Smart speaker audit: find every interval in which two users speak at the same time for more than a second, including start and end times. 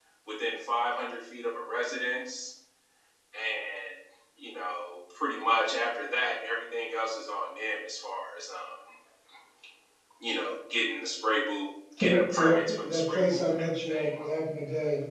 12.0-14.1

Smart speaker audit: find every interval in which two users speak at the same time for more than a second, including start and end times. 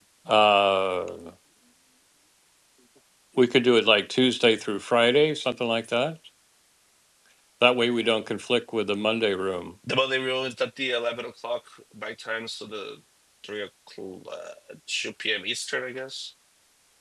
none

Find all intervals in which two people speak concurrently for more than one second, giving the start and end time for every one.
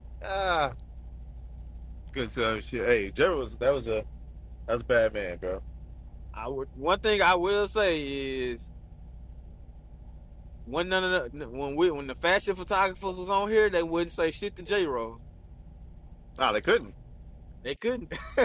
none

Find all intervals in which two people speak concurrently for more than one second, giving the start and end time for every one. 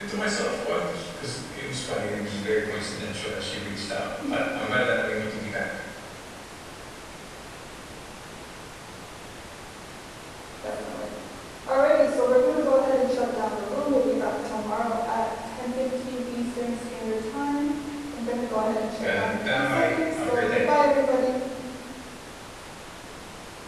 19.0-20.6

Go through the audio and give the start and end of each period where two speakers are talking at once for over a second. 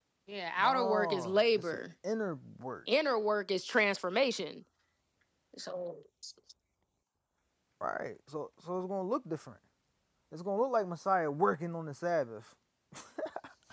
0.6-1.8

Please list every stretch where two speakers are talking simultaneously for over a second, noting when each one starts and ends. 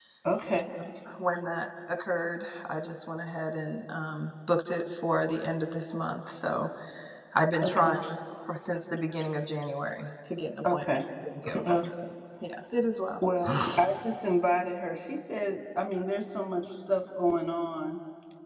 none

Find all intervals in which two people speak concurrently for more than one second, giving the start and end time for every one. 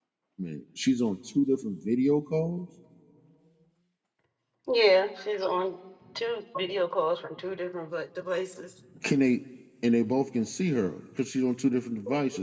none

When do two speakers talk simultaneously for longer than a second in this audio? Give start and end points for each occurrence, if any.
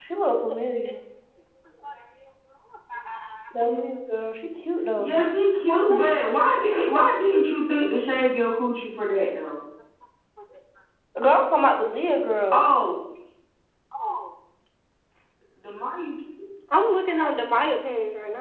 none

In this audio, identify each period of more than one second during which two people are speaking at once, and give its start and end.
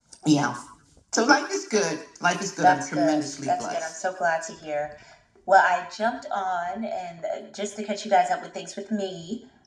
2.6-3.9

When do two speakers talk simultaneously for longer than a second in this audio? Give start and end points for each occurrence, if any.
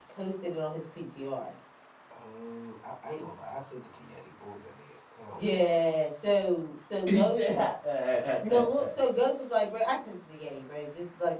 none

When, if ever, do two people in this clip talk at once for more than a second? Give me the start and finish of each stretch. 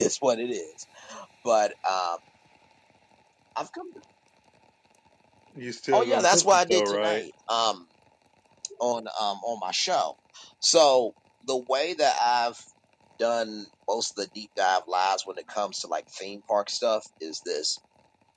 5.9-7.2

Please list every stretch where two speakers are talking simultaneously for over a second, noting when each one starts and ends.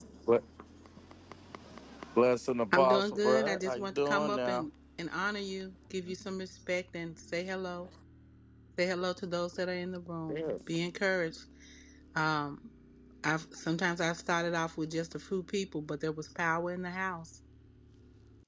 2.7-4.7

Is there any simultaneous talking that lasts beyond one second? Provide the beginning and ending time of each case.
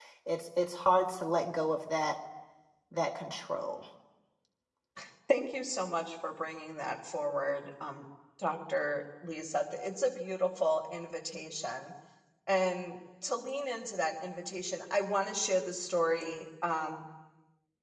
none

